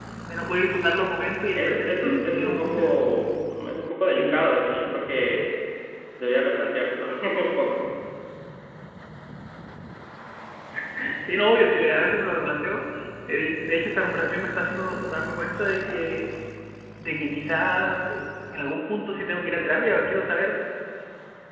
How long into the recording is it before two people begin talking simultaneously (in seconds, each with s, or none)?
1.5 s